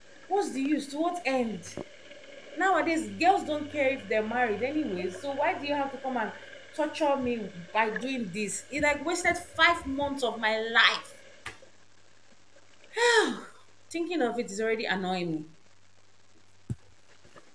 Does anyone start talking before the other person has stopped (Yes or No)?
No